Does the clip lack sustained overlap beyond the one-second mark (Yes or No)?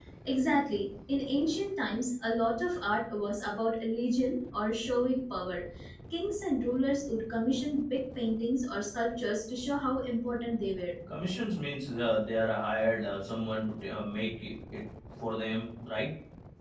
Yes